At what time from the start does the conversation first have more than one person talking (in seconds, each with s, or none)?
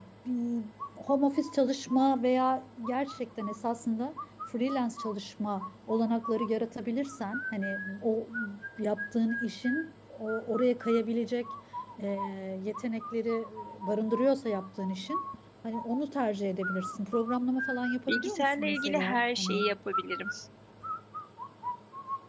18.1 s